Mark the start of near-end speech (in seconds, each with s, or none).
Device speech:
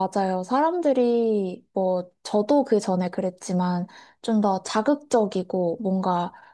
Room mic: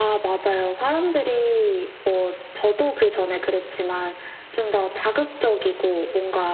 none